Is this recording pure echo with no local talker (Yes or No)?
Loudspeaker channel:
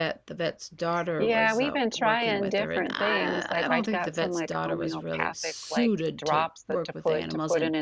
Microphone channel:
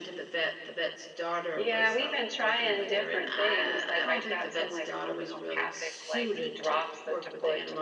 Yes